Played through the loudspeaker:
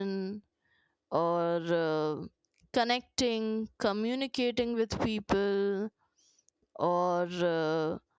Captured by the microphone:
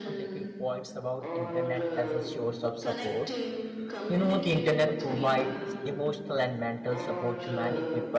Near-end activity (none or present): present